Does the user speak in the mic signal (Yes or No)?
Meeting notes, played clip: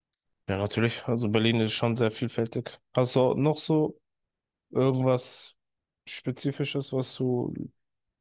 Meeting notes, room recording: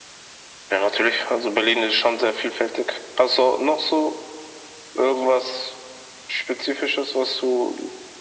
No